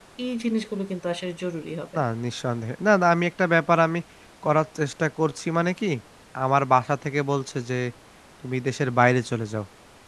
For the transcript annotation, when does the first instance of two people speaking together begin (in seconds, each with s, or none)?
none